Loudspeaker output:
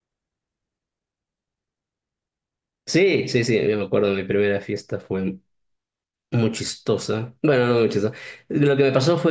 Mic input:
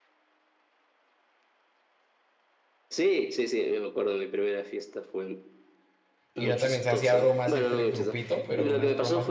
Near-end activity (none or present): present